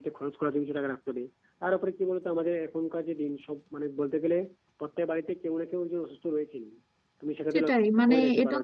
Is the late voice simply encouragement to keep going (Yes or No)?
No